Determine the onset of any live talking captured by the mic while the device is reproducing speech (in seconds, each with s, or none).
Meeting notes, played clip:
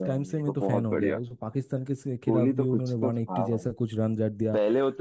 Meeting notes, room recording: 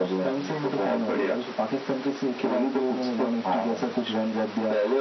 none